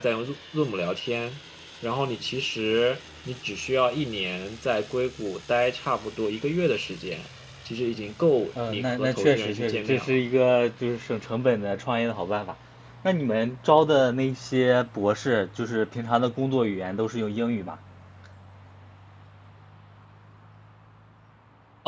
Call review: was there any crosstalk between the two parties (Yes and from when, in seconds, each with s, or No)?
Yes, from 8.6 s